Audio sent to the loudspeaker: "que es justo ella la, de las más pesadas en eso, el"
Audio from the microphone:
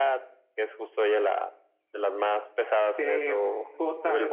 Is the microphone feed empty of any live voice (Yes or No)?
No